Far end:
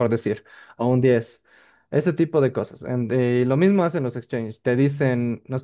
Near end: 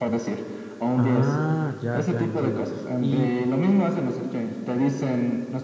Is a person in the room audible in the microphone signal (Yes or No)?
Yes